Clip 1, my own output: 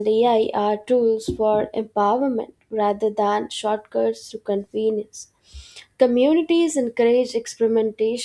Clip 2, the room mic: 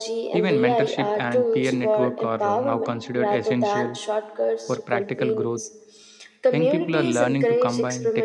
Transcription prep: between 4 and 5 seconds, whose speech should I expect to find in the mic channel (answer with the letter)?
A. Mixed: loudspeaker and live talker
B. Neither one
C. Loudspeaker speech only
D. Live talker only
A